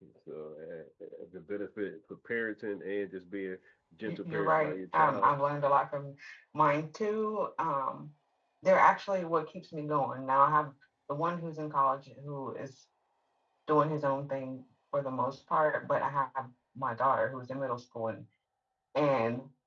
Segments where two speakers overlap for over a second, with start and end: 4.0-5.3

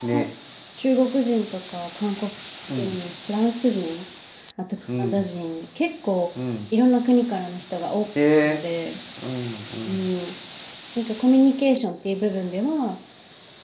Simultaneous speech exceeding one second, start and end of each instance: none

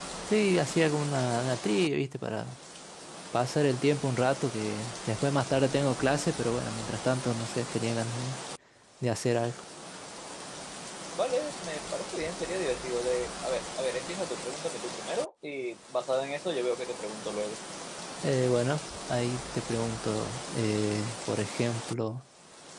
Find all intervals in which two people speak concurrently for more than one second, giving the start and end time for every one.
none

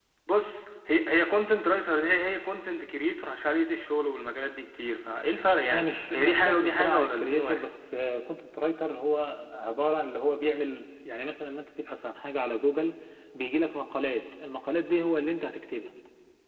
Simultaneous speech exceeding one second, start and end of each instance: 5.7-7.6

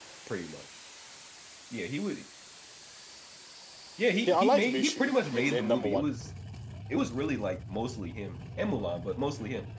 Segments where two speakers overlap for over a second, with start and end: 4.2-6.1

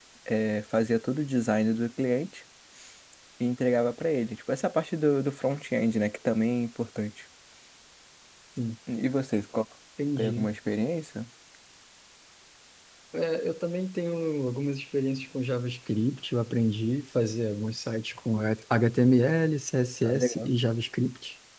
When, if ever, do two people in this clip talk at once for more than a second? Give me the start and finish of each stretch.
none

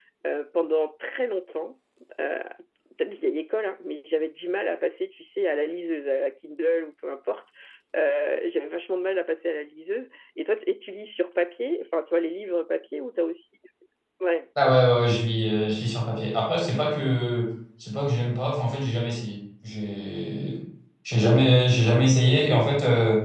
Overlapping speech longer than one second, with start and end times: none

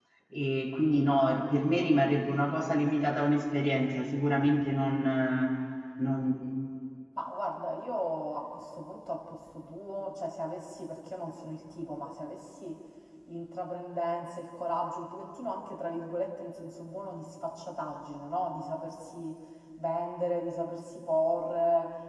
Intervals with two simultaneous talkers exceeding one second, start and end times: none

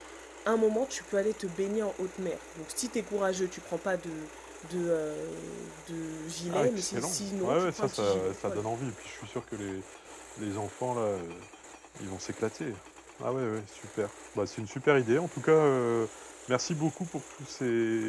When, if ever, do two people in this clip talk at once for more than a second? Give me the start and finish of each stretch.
6.5-8.7

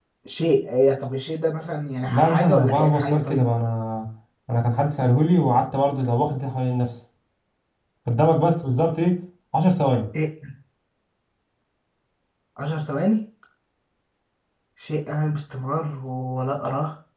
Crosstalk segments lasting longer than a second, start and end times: 2.1-3.5

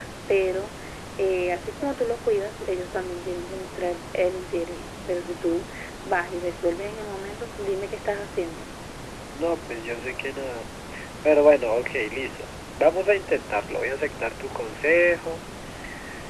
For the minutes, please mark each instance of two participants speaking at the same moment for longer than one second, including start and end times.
none

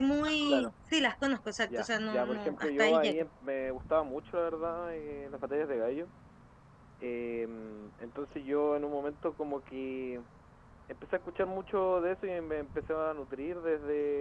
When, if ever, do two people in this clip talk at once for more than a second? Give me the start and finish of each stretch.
1.8-3.2

